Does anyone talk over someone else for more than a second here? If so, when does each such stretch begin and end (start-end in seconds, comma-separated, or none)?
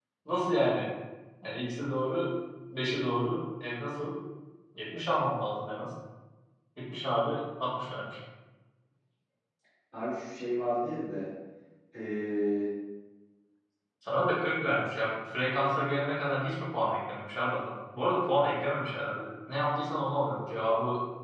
none